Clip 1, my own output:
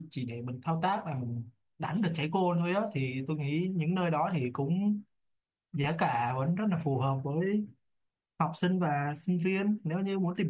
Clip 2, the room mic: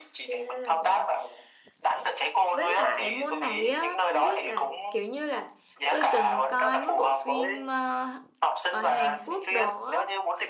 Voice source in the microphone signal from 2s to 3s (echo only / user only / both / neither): both